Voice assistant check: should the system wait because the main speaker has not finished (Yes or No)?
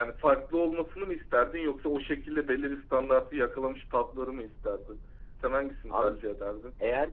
No